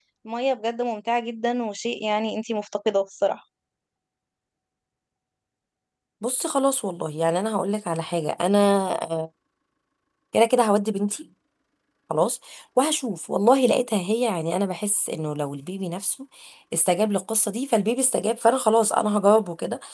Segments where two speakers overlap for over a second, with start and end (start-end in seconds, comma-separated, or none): none